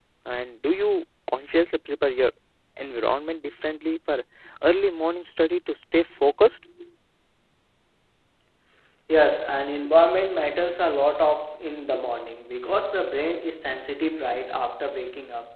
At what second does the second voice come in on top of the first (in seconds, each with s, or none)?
none